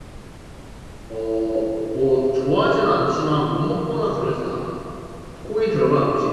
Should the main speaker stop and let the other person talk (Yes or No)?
No